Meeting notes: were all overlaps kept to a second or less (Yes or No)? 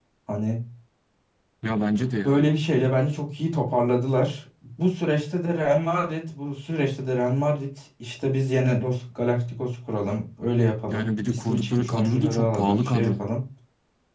No